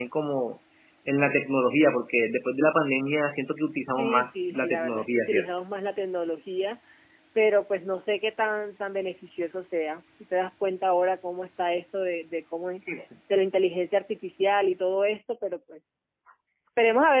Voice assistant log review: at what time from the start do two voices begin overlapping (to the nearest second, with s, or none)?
4 s